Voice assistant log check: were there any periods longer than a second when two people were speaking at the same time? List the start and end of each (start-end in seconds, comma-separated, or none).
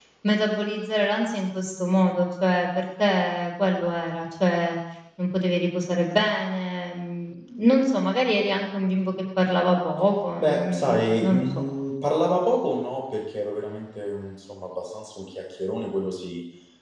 10.4-11.6